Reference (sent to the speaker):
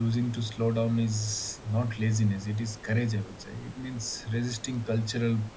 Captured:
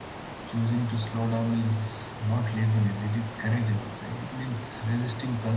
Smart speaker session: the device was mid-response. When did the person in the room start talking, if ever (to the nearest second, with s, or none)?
none